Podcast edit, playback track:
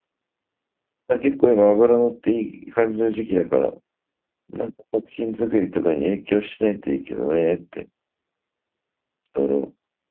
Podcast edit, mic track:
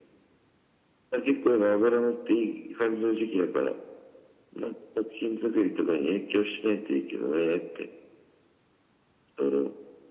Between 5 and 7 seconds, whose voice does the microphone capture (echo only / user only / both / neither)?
echo only